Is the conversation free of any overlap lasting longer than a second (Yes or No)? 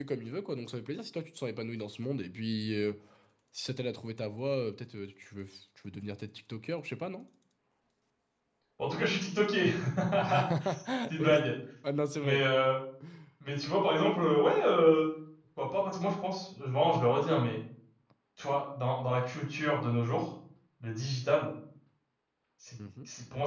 Yes